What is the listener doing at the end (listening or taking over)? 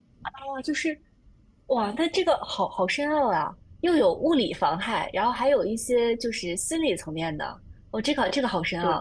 listening